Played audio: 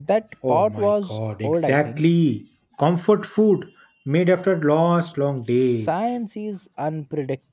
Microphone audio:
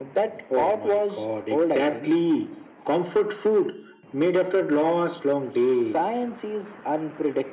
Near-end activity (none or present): none